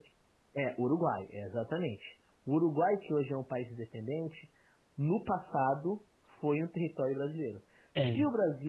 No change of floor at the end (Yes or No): Yes